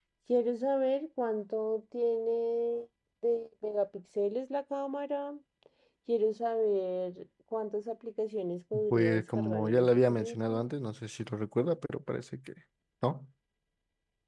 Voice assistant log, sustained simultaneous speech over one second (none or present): present